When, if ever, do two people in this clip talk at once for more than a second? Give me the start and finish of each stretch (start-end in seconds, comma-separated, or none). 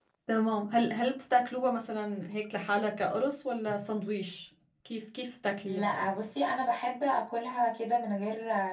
none